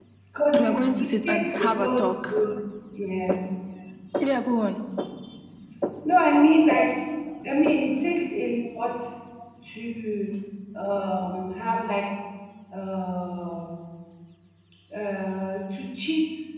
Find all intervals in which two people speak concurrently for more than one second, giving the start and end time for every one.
0.6-2.4

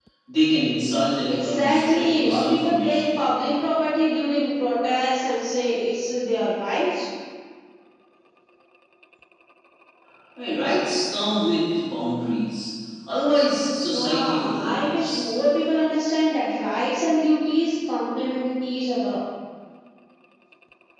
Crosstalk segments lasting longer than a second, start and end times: 1.3-3.2, 13.9-15.3

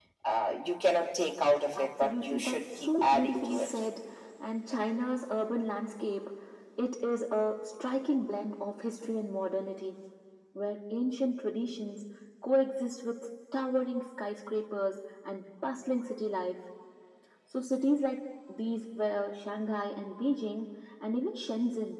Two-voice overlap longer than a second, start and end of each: 1.8-3.7

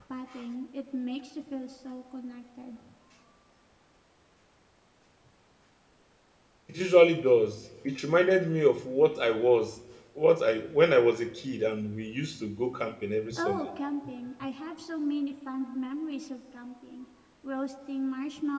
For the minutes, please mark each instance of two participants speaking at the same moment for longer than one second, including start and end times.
none

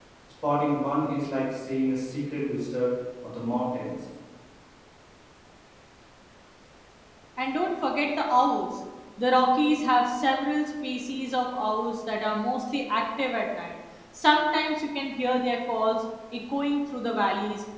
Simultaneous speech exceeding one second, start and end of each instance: none

